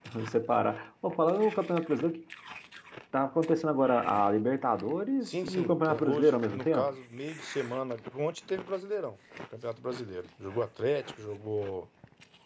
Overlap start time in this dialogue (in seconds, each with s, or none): 5.2 s